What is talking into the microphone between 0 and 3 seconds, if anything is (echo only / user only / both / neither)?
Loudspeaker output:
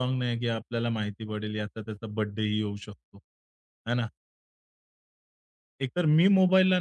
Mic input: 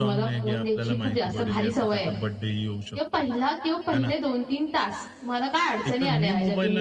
both